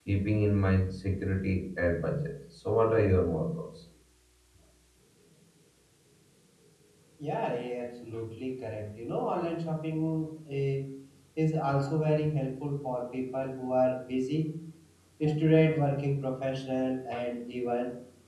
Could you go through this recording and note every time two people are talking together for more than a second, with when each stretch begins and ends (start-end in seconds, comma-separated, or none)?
none